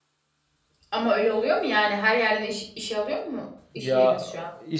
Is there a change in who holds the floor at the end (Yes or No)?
Yes